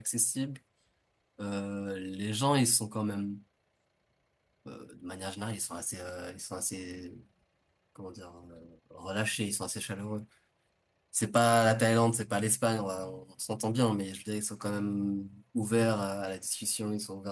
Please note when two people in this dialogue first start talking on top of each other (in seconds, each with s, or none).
none